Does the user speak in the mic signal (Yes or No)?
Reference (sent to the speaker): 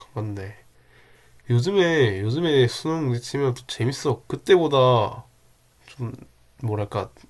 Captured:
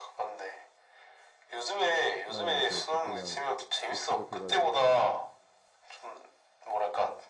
Yes